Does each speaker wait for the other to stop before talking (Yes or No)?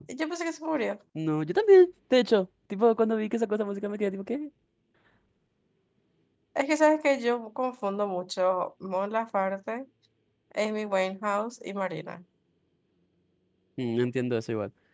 Yes